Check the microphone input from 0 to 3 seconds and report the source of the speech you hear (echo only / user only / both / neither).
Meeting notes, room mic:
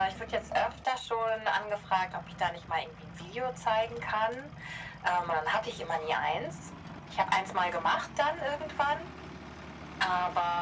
echo only